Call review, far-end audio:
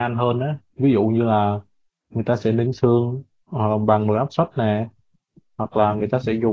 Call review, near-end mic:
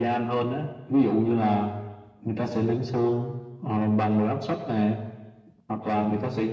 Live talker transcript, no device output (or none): none